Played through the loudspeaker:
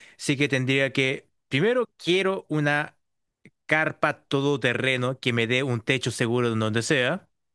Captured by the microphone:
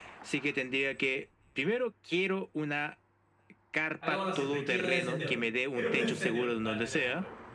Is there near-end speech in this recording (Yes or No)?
Yes